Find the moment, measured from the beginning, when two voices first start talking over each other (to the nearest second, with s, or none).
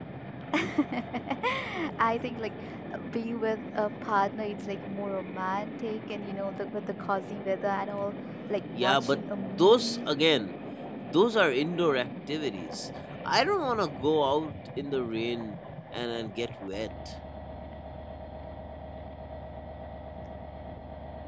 9 s